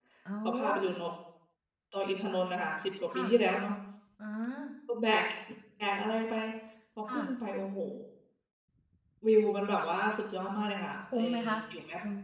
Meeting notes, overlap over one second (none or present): none